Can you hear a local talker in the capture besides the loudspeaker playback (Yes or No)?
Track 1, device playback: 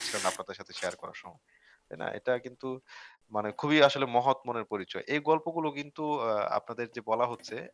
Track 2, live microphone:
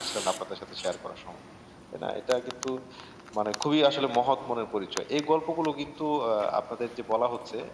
No